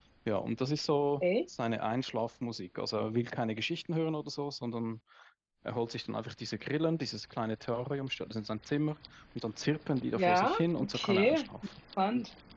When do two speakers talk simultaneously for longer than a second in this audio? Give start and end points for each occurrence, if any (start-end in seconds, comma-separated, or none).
10.1-11.5